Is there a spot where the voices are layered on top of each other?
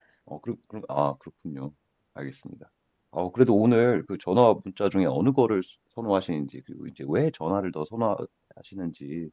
No

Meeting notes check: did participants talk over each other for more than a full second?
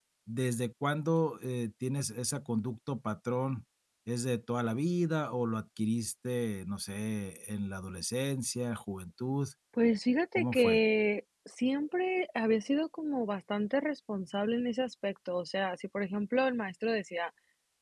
No

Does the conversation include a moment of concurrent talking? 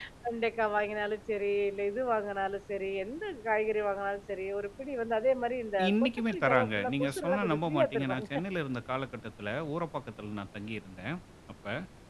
Yes, from 5.8 s

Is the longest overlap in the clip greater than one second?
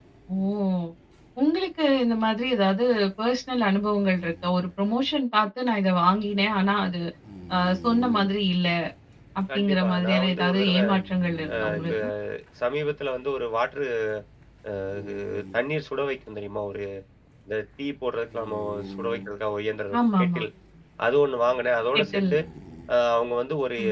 Yes, from 9.5 s

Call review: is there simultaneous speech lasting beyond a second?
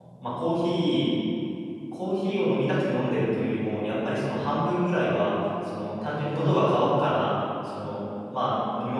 No

